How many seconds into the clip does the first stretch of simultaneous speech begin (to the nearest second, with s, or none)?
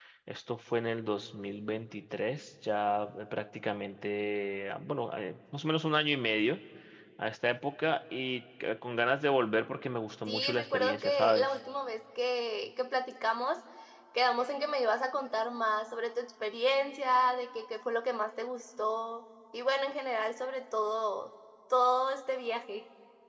10 s